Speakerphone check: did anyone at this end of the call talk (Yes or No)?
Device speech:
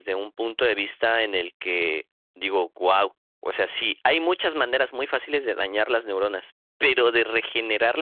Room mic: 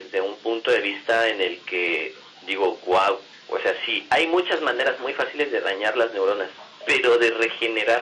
No